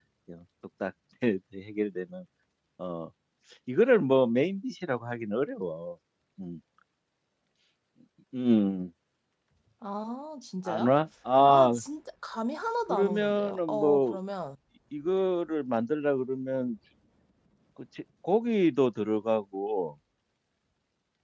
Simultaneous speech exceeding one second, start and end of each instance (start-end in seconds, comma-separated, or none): 12.9-14.2